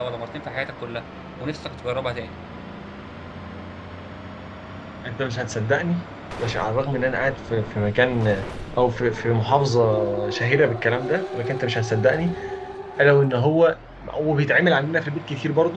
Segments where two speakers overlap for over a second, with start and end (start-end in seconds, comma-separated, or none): none